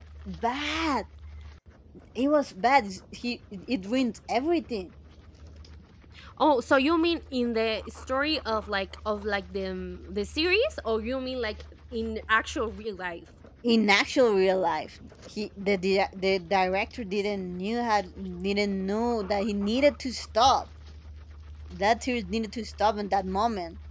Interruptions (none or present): none